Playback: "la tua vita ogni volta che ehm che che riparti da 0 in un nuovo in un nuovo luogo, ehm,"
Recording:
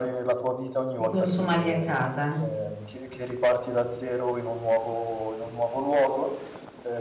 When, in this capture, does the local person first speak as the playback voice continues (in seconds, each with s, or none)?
1.0 s